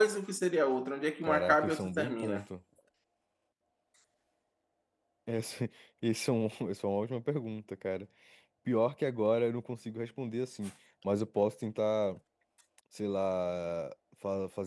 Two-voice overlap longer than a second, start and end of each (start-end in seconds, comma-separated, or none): 1.2-2.4